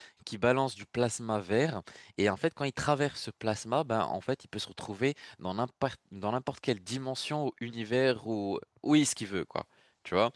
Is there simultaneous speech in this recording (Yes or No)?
No